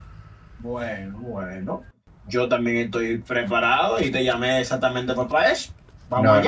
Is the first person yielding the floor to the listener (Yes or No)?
Yes